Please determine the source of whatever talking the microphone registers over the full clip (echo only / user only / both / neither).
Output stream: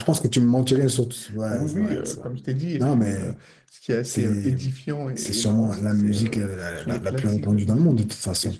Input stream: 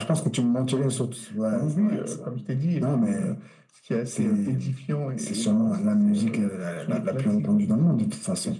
echo only